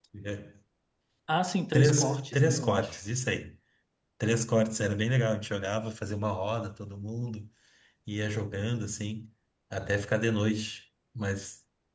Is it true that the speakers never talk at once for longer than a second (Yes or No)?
No